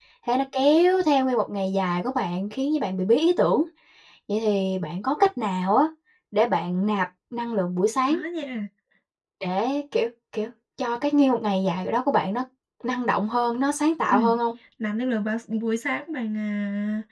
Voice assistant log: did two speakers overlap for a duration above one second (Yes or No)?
No